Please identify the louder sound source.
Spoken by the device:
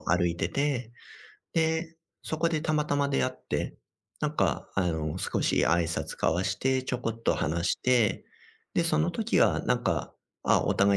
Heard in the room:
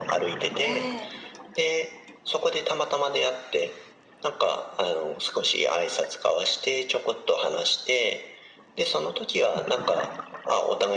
echo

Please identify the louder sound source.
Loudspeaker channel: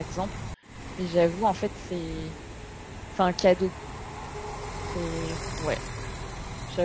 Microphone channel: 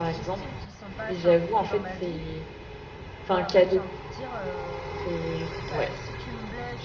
echo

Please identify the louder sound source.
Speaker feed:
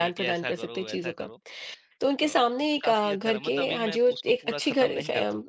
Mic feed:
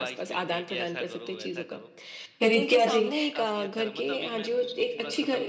user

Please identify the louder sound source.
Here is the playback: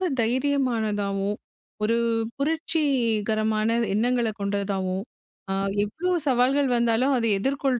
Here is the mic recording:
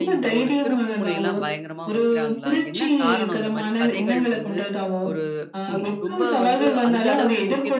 echo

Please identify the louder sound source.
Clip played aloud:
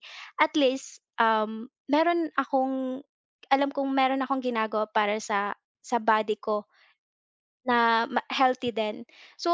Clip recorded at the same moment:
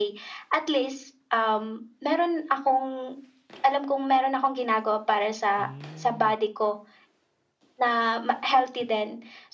echo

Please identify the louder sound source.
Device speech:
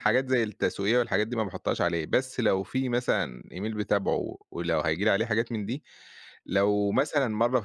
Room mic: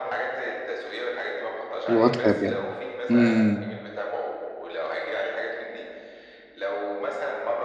user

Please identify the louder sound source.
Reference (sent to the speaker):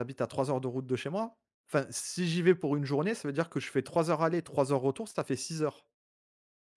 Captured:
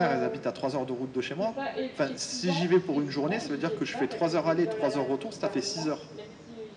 echo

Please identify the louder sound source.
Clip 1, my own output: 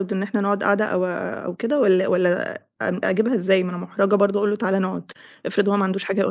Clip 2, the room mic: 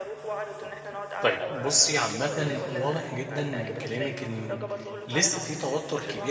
user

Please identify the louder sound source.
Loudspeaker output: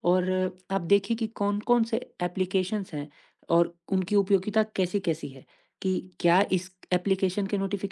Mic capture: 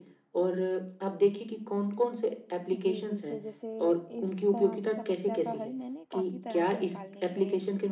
echo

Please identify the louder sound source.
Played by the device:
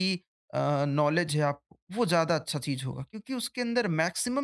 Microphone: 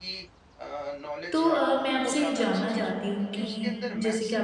user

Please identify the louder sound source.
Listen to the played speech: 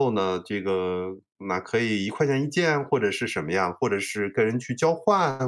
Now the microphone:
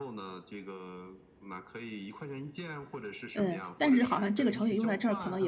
user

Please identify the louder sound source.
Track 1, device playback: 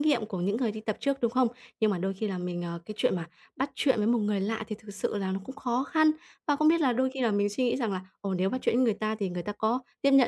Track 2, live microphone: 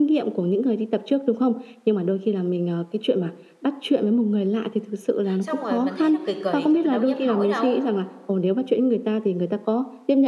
echo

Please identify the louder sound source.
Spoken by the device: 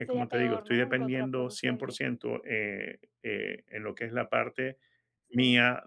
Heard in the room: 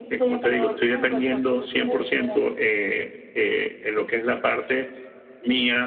echo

